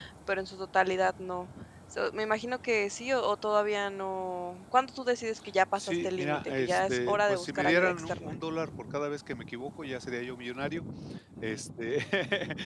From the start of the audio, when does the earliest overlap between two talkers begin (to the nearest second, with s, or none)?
6 s